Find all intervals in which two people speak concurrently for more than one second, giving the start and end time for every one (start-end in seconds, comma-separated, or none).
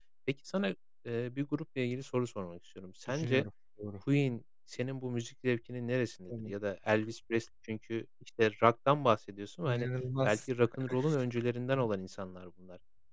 none